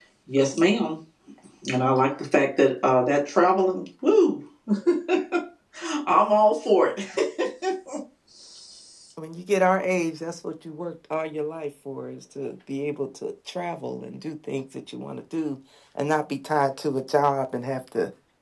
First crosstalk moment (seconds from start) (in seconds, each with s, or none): none